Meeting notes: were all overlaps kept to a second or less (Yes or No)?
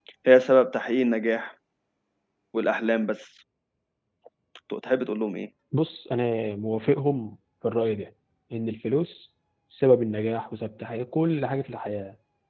Yes